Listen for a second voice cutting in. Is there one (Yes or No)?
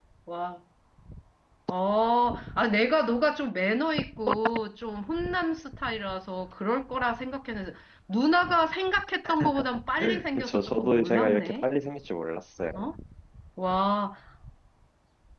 Yes